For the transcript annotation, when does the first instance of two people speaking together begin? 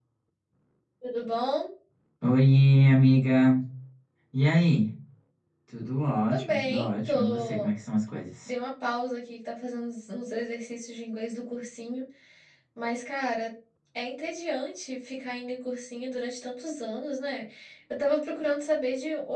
6.3 s

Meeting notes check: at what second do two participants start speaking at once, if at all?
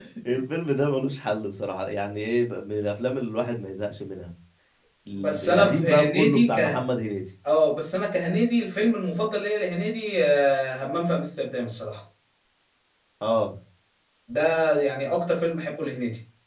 5.1 s

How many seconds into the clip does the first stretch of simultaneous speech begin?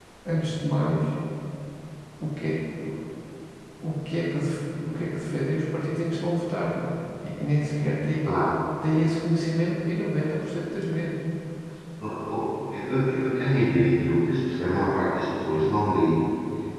none

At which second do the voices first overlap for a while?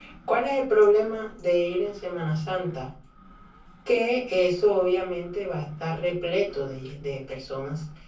none

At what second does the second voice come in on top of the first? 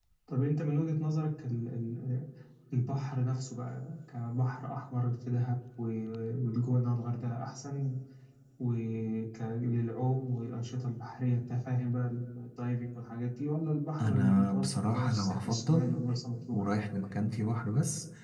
14.0 s

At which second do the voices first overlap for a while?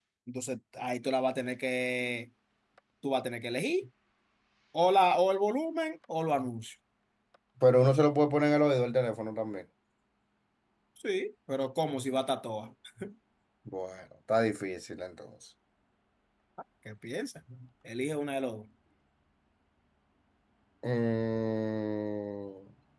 none

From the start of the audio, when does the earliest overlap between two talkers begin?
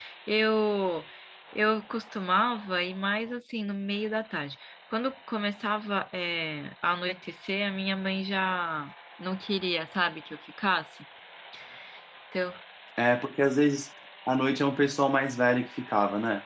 none

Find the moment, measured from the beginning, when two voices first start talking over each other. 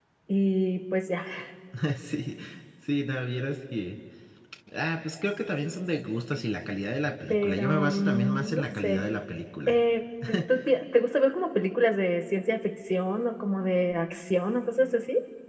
7.3 s

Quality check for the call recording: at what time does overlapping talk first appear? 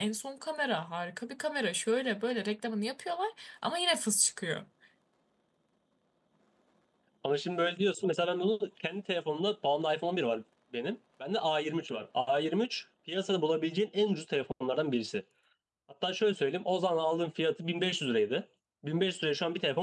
none

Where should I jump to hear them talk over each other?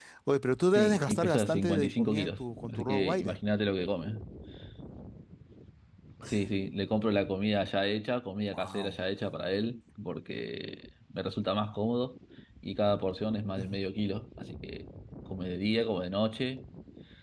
0.8 s

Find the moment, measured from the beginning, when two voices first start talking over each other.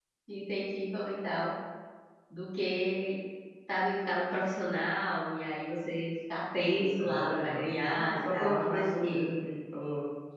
6.8 s

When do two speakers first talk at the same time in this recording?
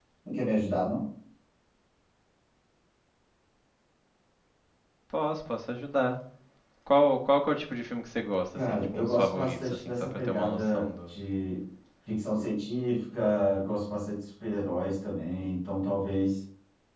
8.6 s

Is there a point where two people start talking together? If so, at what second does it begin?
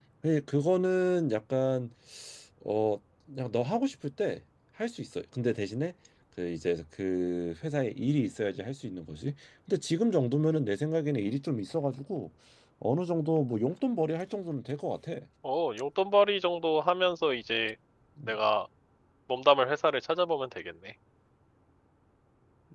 none

